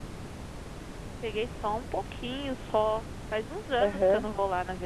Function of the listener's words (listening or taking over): listening